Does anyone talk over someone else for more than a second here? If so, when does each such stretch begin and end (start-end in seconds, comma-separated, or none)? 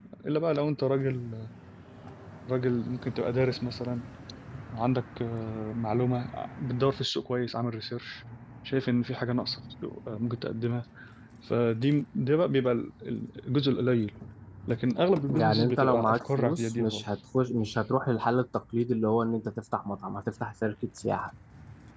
15.3-17.0